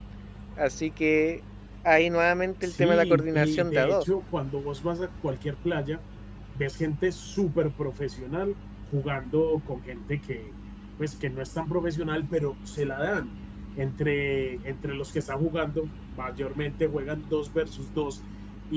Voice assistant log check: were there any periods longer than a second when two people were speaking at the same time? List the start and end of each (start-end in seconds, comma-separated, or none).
2.6-4.0